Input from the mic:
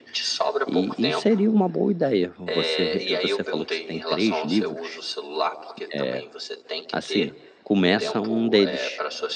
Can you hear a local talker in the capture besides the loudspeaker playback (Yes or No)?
Yes